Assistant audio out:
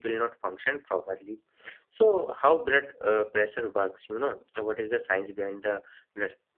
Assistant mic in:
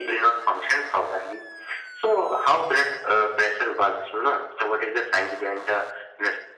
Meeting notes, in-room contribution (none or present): none